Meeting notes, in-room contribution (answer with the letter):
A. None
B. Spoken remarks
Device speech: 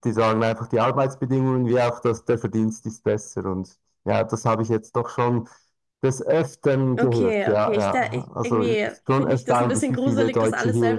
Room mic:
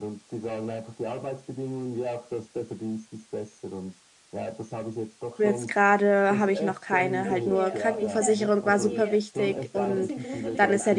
B